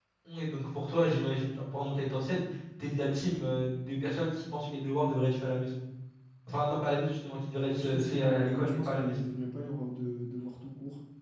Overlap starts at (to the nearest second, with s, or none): 8 s